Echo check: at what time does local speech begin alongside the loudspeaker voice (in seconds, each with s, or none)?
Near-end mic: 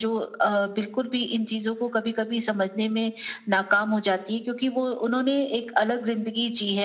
none